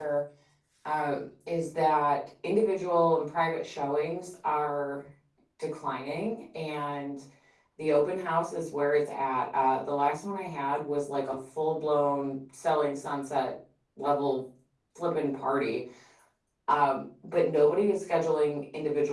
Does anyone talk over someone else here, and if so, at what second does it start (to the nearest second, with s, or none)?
none